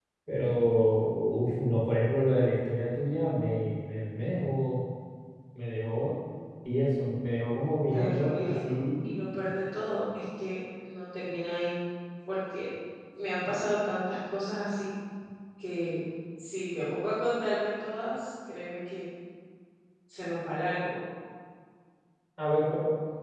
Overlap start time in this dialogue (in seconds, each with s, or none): 7.9 s